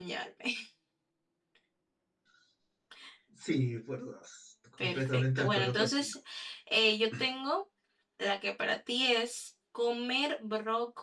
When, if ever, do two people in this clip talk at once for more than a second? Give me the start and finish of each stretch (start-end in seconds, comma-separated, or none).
4.8-6.1